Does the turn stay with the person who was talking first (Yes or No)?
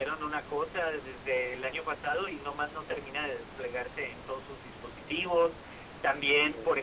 Yes